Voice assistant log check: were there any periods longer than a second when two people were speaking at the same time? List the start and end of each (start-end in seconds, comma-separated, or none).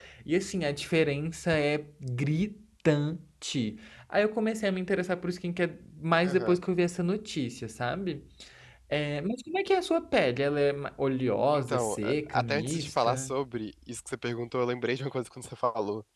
11.5-13.3